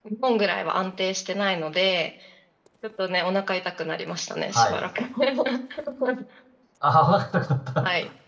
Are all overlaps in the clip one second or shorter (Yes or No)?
Yes